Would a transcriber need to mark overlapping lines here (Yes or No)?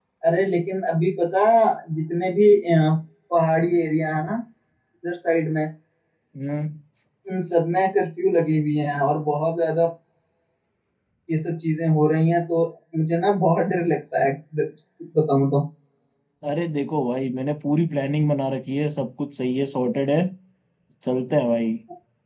No